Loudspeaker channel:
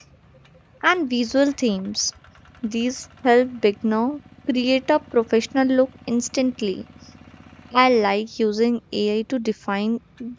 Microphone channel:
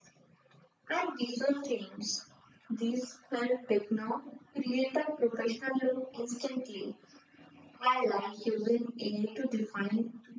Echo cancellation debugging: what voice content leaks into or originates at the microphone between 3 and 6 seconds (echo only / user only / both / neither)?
echo only